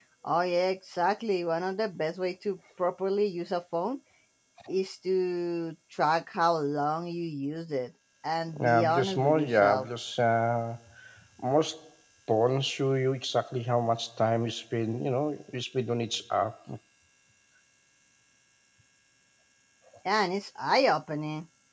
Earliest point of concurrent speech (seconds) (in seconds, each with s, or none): 8.6 s